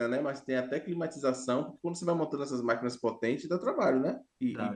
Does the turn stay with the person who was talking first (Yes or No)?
No